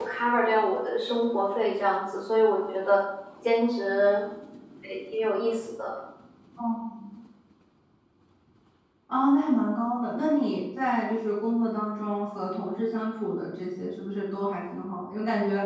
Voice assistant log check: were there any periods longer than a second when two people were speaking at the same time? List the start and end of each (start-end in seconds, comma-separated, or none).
none